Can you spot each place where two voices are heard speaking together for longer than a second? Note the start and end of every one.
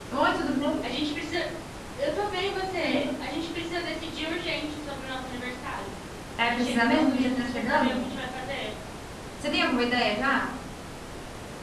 6.5-8.1

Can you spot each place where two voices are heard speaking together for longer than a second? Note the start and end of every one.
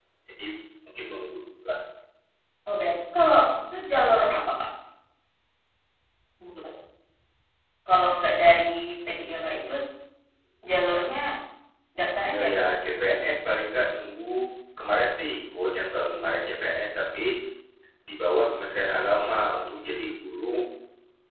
none

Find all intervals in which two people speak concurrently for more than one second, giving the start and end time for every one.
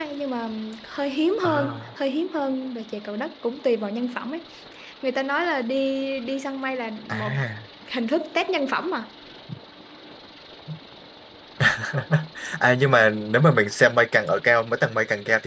none

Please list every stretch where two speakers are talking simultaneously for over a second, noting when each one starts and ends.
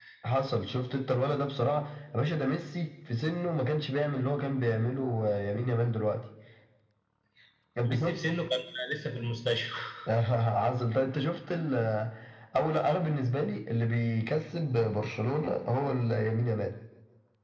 none

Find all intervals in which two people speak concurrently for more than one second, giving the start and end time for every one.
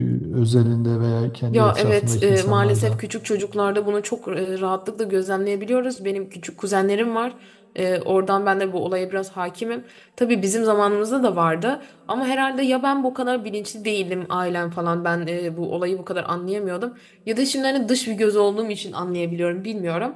1.5-3.0

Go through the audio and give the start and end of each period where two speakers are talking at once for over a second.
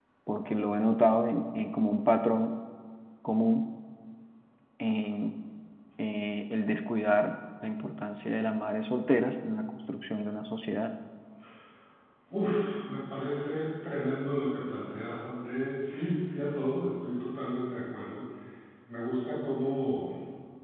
none

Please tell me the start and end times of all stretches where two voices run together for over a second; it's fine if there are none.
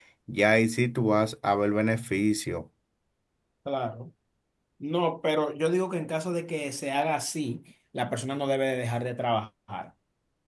none

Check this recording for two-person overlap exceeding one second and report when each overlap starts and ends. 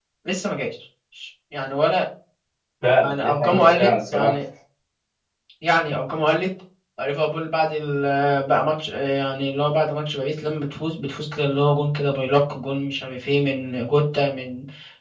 3.0-4.3

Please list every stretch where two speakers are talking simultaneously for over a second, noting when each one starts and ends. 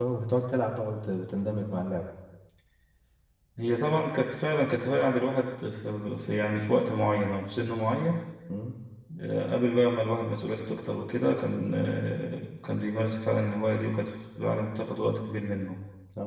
none

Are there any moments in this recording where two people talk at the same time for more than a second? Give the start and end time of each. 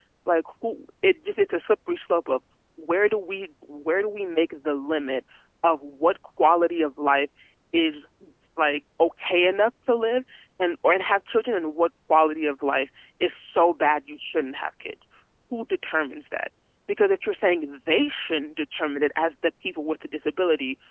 none

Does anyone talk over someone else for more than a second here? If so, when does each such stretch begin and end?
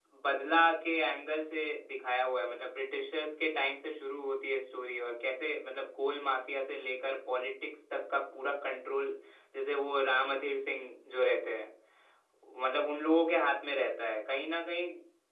none

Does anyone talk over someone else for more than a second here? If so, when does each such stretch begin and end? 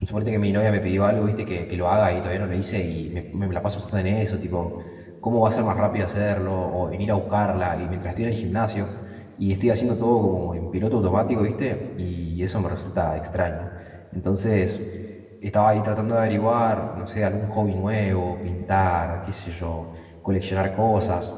none

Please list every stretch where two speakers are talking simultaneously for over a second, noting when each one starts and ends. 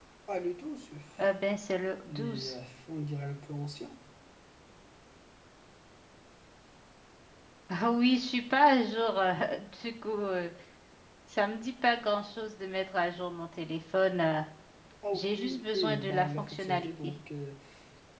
15.1-17.2

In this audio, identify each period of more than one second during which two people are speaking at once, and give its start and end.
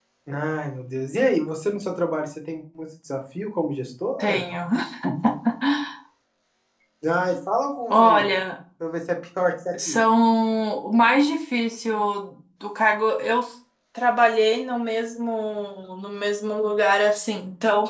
none

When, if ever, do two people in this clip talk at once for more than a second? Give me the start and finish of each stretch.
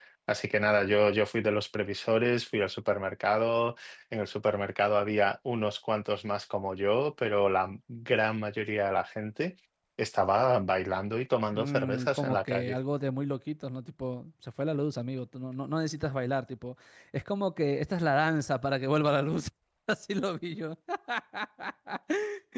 11.5-12.8

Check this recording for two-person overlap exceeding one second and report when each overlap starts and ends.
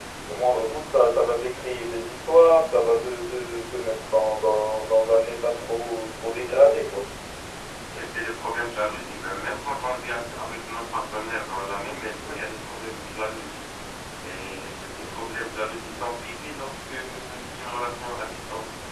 none

